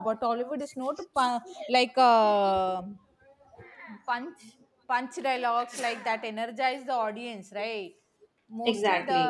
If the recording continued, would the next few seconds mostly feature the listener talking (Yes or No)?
No